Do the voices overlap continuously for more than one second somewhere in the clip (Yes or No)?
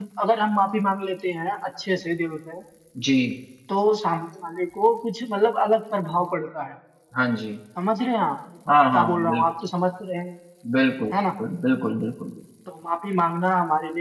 No